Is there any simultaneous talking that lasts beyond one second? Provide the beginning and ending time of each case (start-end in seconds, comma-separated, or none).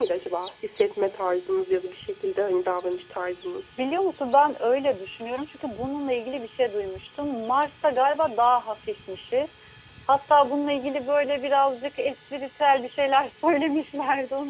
none